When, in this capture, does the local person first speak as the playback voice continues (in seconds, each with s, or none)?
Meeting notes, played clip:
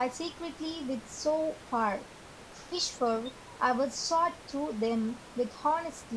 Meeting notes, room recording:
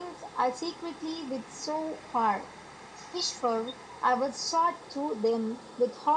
none